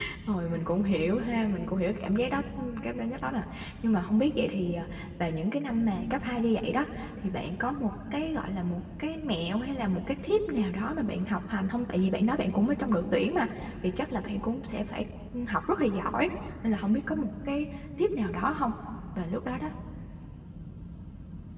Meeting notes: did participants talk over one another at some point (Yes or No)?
No